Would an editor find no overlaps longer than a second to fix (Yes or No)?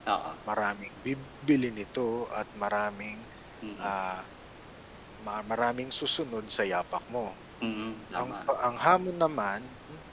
Yes